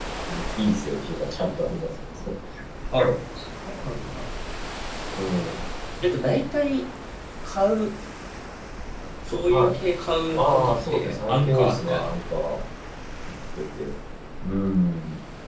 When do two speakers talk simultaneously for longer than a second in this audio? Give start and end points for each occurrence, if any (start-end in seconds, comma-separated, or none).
10.3-12.1